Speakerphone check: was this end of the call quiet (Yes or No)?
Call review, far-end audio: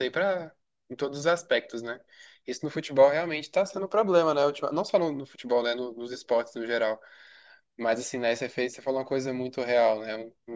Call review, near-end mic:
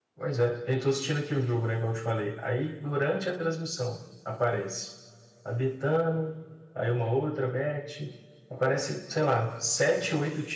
No